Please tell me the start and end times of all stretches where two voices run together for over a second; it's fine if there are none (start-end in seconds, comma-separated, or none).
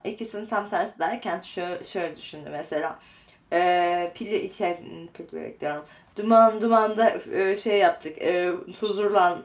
none